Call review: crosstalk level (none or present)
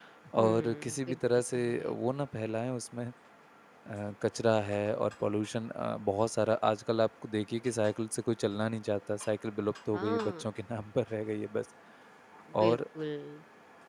present